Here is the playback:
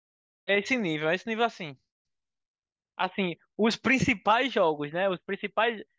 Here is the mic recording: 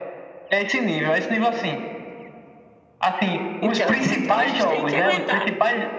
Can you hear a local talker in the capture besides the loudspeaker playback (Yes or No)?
Yes